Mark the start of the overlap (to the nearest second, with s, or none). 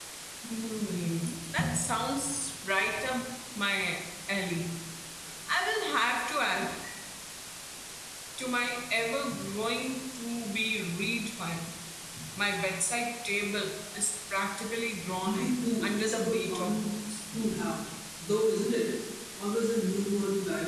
15 s